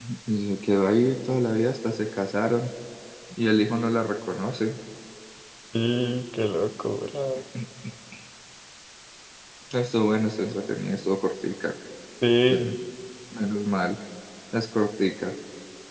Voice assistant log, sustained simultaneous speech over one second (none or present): none